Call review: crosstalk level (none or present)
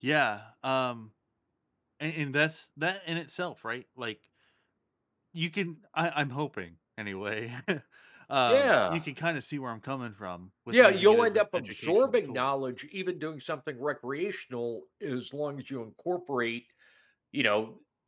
present